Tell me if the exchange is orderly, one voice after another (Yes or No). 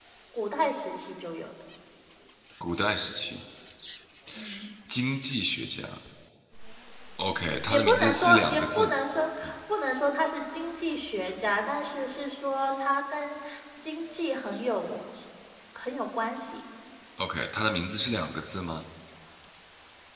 No